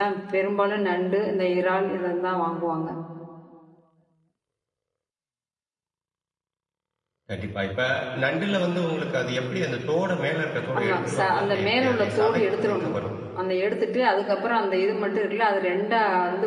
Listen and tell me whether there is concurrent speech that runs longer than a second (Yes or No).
Yes